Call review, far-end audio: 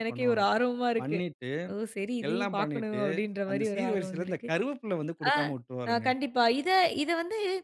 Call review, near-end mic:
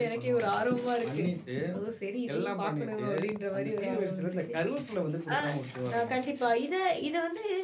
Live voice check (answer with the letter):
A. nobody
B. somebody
A